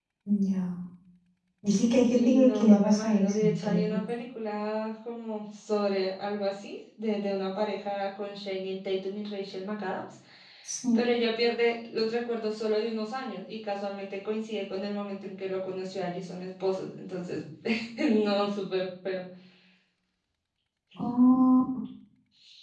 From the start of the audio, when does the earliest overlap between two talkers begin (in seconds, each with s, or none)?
2.1 s